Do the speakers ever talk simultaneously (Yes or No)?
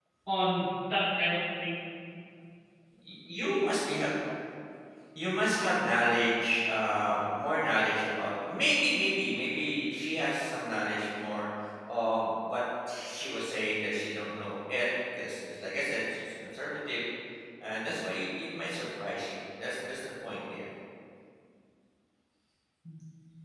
No